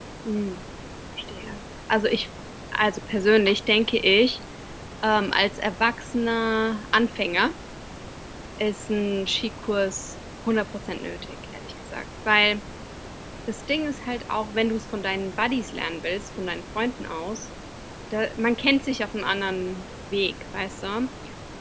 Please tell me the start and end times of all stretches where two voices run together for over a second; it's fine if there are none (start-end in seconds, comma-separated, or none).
none